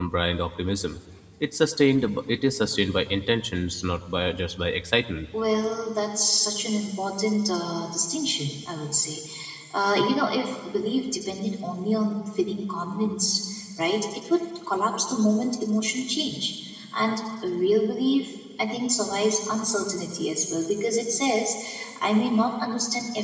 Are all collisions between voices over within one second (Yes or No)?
Yes